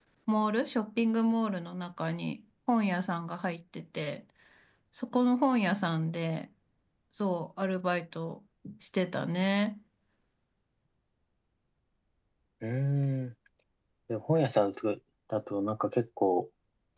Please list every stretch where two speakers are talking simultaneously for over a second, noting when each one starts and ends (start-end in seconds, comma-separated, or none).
none